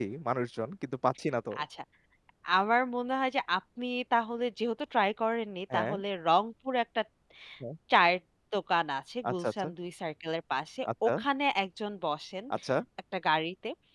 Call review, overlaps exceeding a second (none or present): none